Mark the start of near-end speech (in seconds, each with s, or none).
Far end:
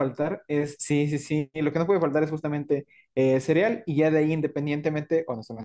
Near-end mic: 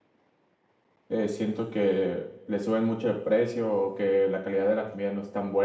1.1 s